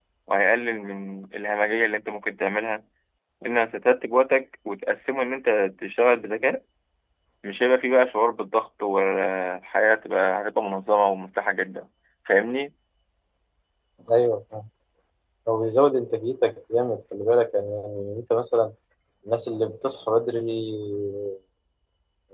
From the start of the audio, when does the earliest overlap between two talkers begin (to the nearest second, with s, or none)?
none